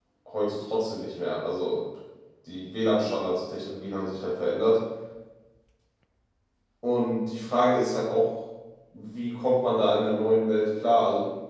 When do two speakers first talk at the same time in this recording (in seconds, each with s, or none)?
none